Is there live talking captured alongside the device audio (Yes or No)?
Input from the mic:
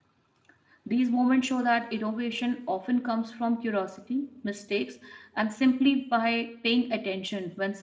Yes